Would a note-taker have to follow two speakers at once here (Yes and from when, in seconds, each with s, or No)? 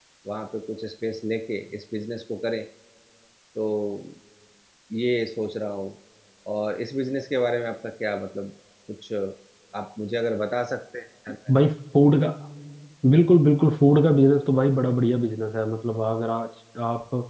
No